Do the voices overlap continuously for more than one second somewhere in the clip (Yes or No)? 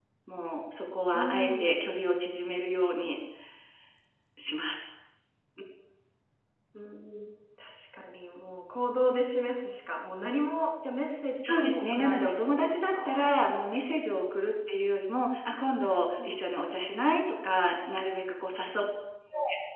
Yes